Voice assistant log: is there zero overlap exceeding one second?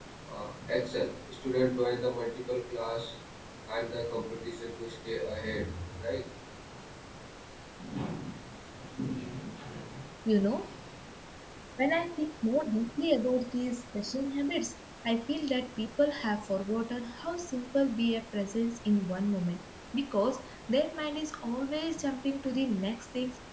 Yes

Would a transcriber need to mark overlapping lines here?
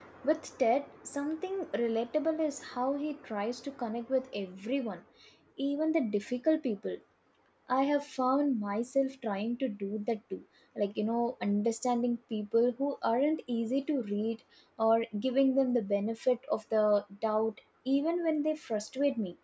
No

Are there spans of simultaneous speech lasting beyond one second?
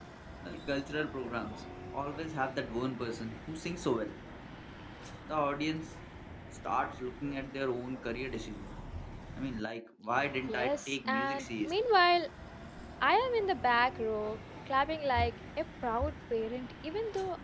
Yes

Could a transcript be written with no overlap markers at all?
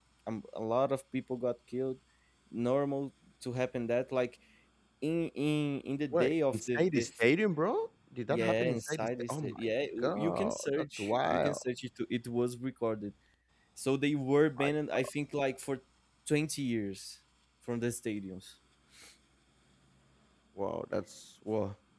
No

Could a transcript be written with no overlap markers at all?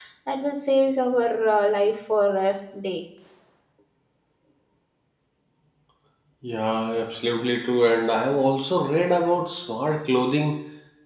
Yes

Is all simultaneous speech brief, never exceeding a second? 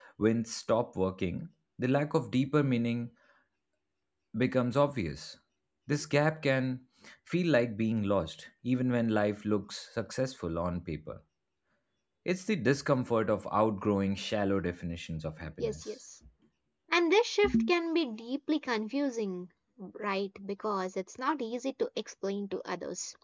Yes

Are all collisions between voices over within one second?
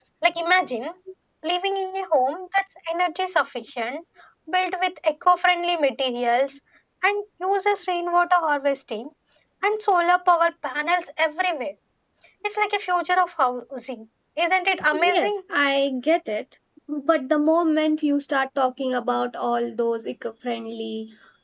Yes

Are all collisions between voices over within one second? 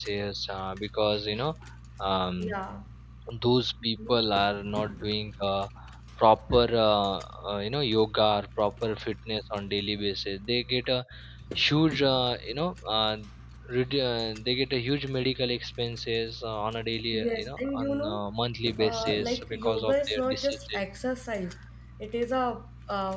No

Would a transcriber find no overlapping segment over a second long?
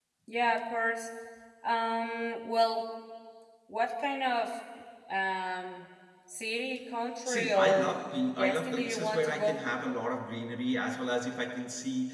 No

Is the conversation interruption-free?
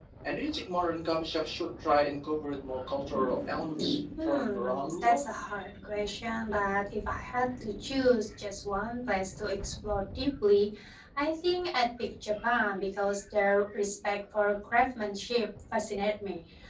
No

